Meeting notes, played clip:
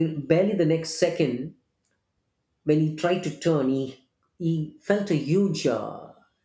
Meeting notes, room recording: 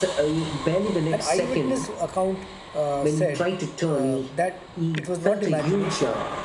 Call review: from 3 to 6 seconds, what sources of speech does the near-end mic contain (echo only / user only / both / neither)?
both